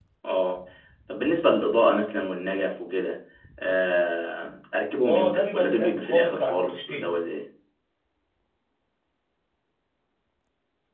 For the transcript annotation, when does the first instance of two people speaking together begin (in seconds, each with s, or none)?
5.0 s